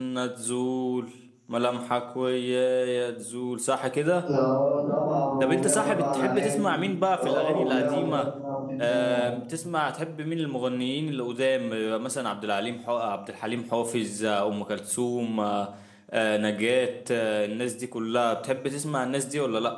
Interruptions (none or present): present